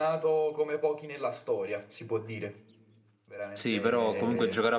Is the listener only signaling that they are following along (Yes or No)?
No